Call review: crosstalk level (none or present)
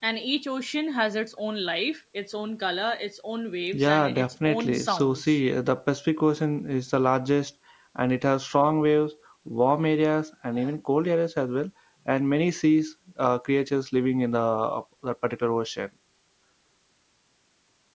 present